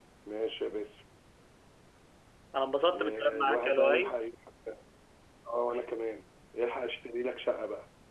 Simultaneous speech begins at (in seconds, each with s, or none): 2.9 s